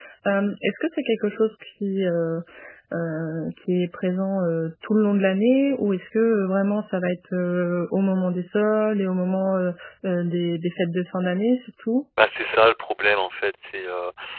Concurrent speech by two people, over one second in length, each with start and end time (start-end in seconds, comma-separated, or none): none